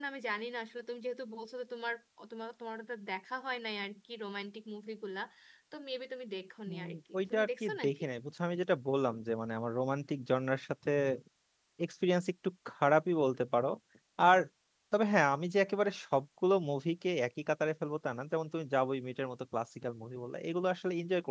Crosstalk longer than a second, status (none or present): present